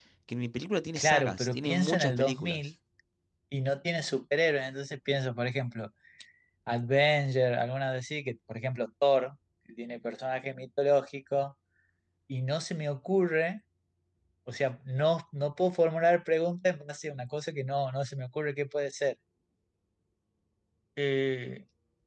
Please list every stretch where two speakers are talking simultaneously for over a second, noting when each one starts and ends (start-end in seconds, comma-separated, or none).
1.0-2.7